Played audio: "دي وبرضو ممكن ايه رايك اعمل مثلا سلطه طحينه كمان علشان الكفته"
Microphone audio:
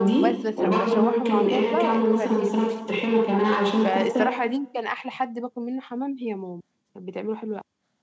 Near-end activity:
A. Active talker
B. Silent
A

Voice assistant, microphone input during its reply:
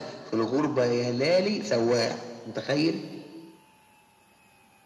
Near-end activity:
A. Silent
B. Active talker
A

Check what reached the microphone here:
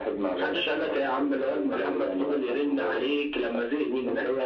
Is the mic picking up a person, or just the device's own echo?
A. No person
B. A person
A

